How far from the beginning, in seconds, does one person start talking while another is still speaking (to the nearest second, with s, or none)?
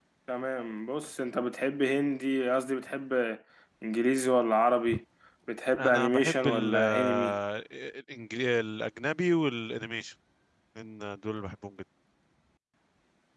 6 s